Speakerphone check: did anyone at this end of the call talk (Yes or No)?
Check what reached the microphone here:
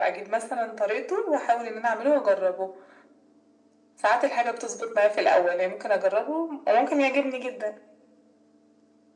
No